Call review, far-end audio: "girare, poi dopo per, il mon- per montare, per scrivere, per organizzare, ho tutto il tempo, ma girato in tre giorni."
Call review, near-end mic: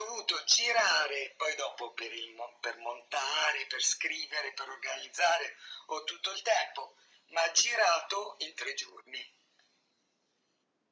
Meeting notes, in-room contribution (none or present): none